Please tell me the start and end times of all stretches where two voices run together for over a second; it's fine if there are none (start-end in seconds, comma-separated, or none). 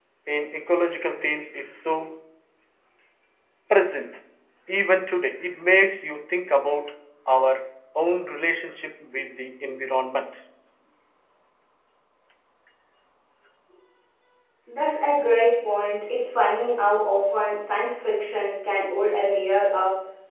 none